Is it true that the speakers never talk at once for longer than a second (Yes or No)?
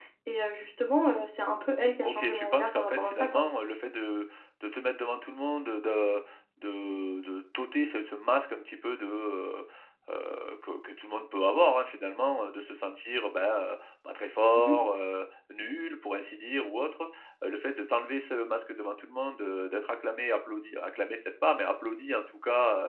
No